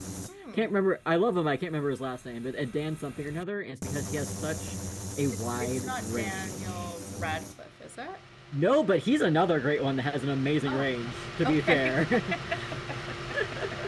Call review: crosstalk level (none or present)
present